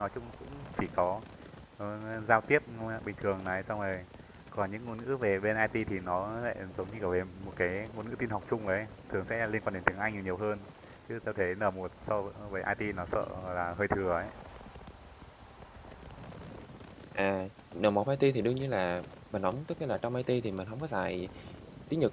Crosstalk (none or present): none